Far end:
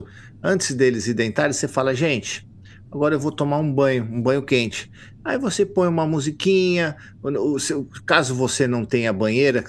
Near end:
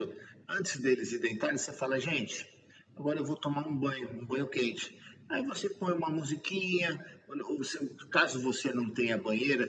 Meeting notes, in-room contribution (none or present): none